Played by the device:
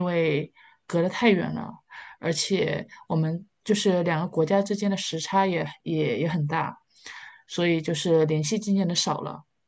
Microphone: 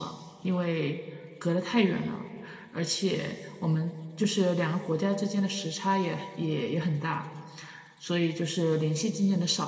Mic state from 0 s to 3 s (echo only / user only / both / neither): echo only